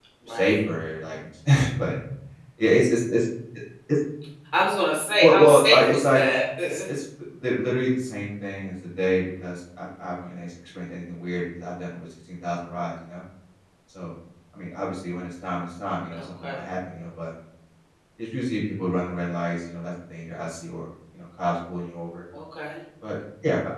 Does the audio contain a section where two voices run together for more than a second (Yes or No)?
Yes